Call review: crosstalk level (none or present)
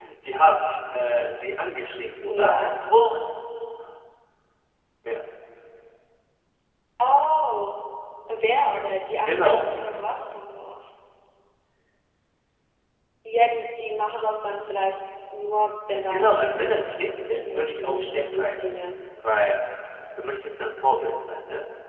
present